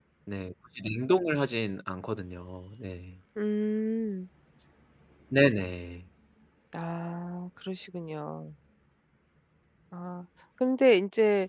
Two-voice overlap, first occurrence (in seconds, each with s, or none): none